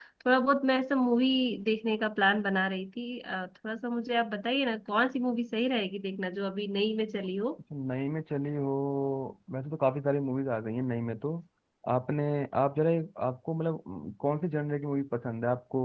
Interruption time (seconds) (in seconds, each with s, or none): none